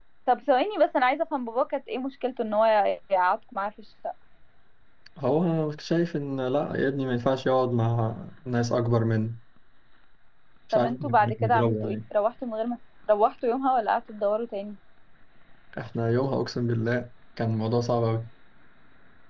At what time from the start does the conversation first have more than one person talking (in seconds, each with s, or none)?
10.7 s